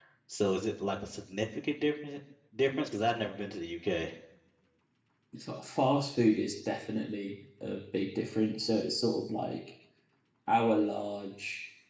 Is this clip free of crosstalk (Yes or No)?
Yes